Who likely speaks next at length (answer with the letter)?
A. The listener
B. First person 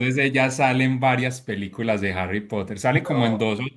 B